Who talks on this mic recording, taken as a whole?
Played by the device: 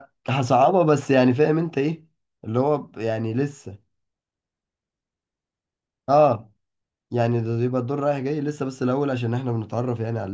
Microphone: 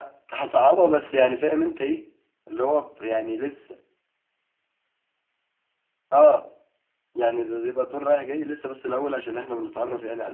echo only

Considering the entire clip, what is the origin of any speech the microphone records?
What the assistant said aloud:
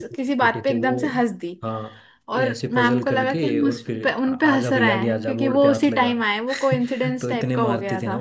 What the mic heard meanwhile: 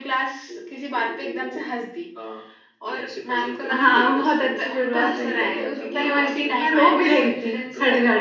both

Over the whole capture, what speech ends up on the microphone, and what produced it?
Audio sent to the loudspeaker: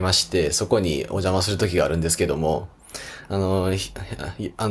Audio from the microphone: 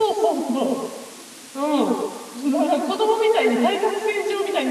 user only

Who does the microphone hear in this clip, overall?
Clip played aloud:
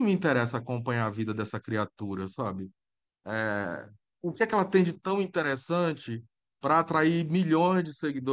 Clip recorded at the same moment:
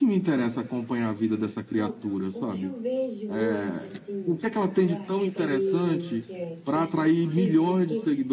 both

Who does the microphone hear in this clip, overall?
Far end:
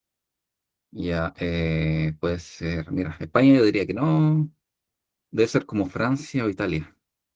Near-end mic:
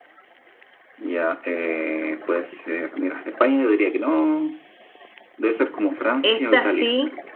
both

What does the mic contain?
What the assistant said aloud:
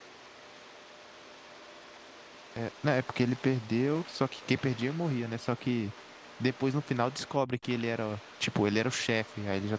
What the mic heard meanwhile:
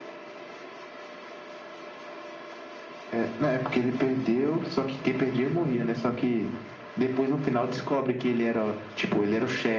echo only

